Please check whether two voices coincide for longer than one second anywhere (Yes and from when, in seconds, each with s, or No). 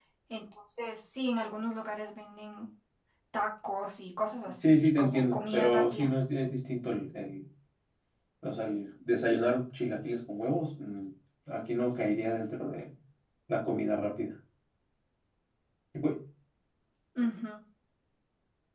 Yes, from 4.6 s